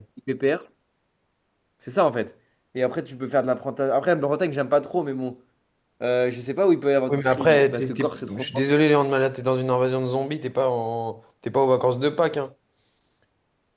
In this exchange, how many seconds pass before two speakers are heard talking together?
7.1 s

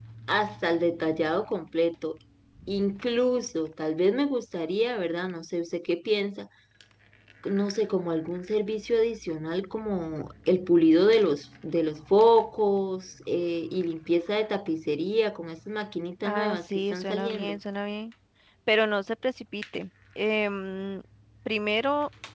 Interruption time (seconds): 16.2 s

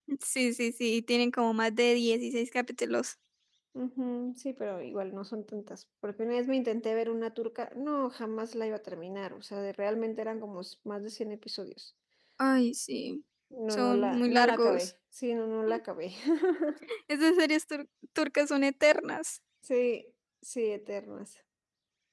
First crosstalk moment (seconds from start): 13.7 s

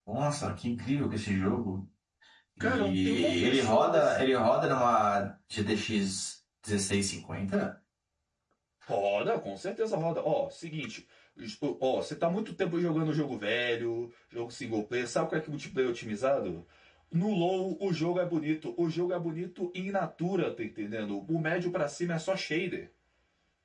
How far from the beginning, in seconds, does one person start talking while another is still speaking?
2.6 s

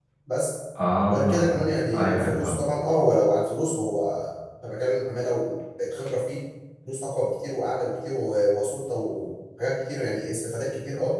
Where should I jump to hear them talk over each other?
1.1 s

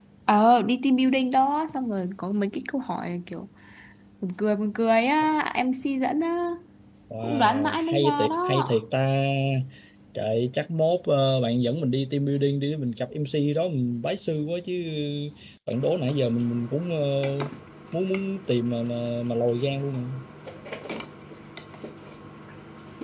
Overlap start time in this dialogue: 7.2 s

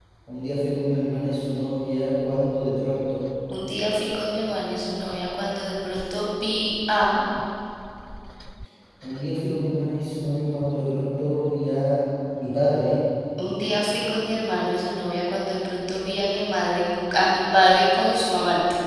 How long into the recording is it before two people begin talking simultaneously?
none

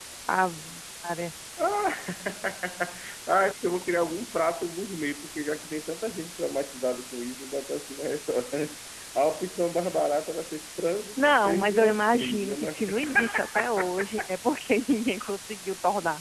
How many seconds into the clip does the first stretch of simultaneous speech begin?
11.2 s

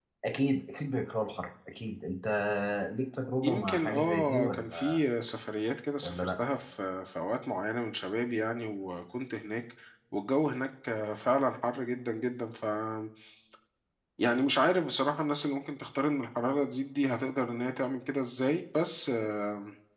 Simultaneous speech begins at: 3.4 s

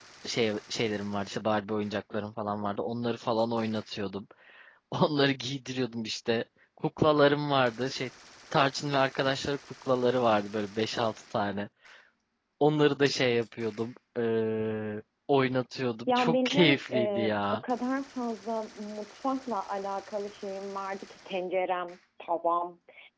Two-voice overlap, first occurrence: 16.1 s

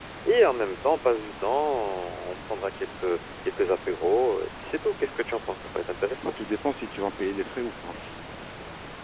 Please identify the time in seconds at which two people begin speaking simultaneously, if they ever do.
none

